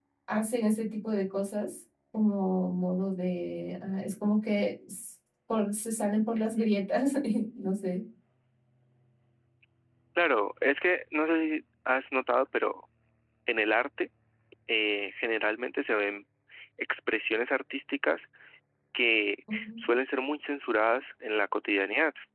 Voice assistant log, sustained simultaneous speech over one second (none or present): none